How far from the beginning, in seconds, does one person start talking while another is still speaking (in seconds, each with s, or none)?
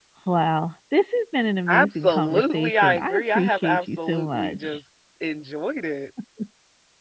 1.7 s